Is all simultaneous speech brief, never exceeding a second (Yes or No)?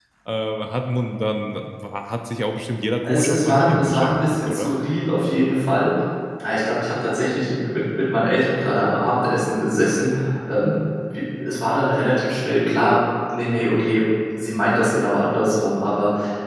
No